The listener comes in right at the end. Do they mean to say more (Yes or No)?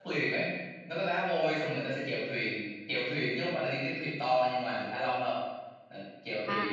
Yes